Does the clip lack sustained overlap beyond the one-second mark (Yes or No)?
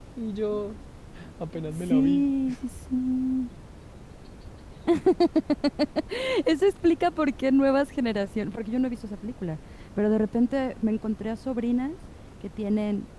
Yes